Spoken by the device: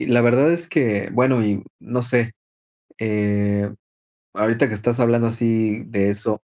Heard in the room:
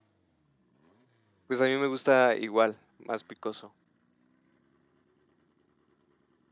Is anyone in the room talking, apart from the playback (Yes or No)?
Yes